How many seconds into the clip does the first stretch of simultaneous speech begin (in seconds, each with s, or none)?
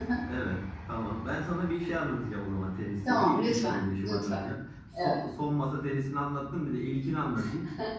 3.1 s